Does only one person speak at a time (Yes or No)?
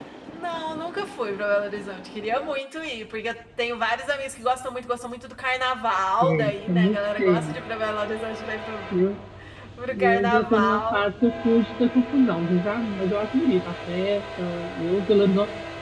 No